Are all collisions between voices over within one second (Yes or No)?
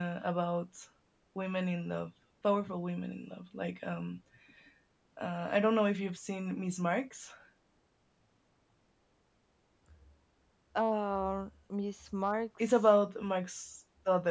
Yes